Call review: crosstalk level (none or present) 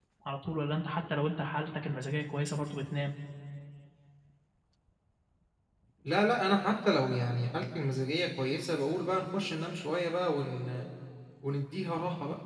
none